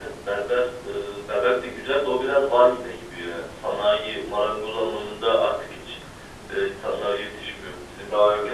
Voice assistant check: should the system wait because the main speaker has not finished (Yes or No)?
Yes